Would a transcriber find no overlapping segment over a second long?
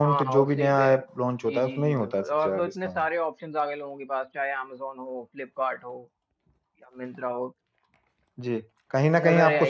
No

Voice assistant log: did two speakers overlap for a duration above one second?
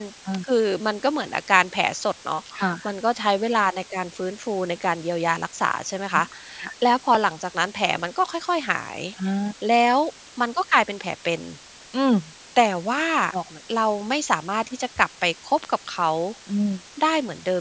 No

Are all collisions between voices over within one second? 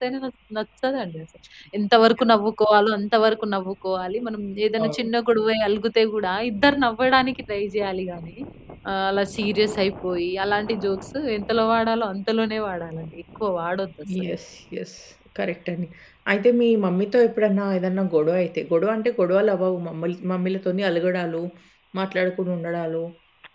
Yes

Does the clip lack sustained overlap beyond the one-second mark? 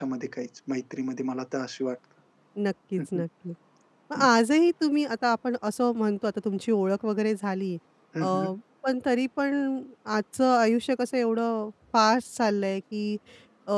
Yes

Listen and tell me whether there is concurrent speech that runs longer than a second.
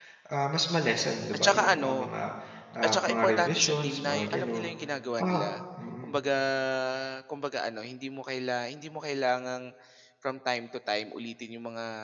Yes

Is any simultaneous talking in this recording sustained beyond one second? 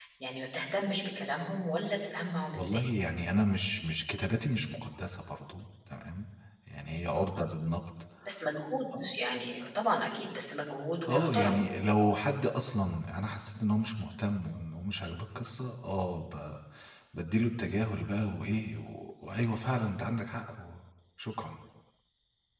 No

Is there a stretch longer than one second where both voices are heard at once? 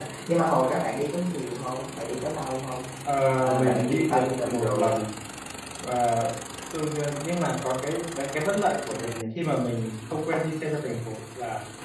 Yes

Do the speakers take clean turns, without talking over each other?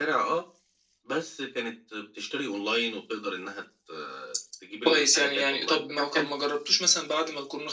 No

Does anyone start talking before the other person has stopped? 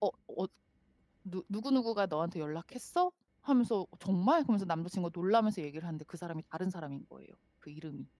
No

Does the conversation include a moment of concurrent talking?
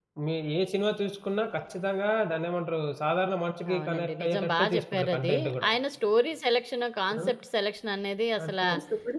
Yes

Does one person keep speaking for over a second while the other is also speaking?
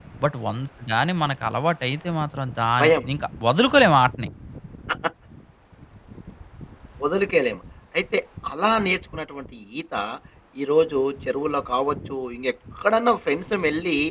No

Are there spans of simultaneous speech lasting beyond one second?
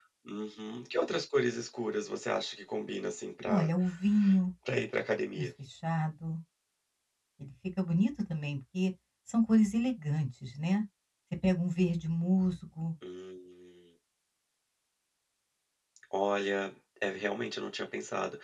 No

